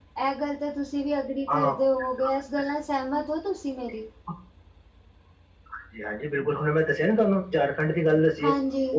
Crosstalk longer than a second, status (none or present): none